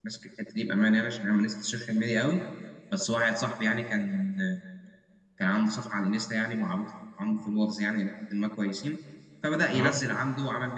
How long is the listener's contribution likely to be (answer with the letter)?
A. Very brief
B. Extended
A